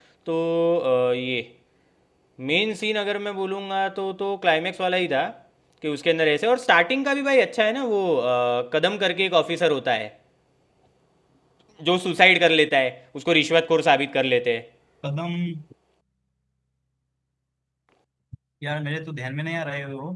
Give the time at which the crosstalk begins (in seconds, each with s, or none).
none